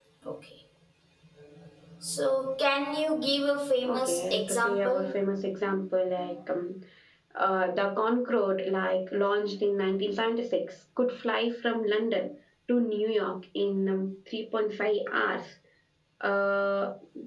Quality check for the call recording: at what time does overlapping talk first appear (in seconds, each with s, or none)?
3.8 s